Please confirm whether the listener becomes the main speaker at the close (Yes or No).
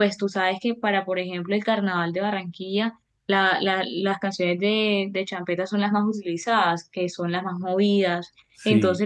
No